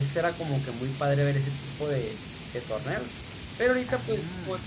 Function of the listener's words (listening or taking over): listening